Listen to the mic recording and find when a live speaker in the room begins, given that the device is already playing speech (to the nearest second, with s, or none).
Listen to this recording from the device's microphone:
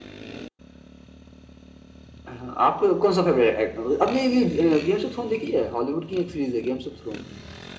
none